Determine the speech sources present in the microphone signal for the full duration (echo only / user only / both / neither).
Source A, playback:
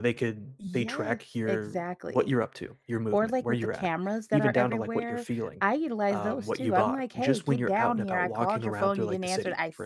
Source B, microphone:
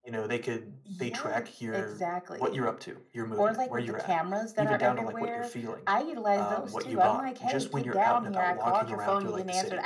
echo only